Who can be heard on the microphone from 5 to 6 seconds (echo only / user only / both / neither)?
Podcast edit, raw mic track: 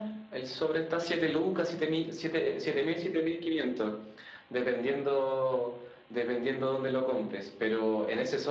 echo only